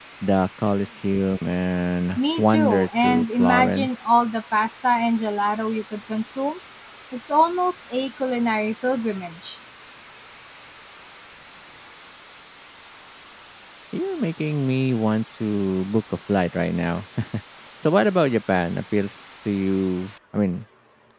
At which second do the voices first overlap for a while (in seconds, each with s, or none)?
2.2 s